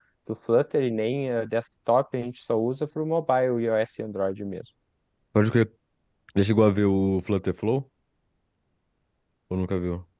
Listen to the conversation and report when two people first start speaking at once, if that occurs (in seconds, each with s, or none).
none